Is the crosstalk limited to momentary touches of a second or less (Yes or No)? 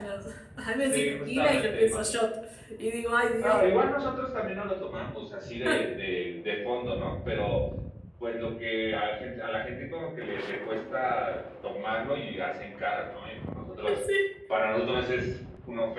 No